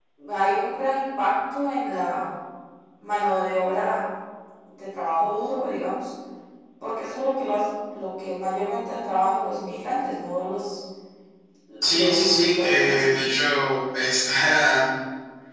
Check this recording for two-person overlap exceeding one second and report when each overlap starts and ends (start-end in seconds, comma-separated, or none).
11.9-13.2